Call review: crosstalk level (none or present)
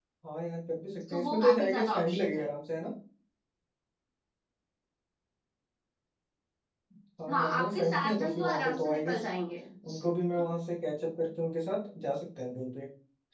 present